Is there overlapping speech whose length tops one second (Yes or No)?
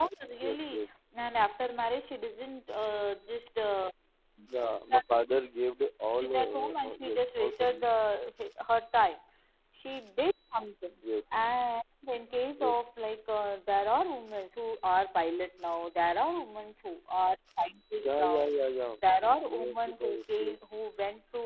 Yes